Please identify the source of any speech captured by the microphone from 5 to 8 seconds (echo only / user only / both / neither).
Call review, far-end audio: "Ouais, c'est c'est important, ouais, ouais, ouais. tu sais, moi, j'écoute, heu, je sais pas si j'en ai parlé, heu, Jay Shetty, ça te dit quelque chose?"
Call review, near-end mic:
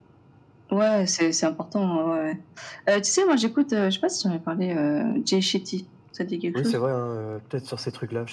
both